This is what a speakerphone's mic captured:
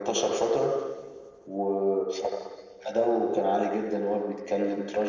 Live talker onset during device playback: none

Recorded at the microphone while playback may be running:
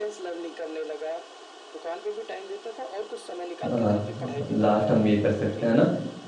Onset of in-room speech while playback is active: 3.7 s

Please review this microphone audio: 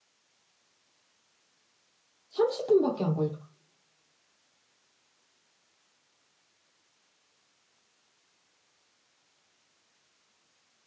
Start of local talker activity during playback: 2.3 s

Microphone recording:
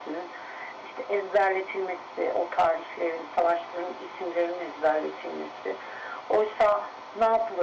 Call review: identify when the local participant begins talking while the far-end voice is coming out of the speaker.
none

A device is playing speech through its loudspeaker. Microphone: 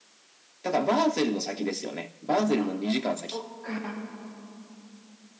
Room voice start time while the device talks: 2.6 s

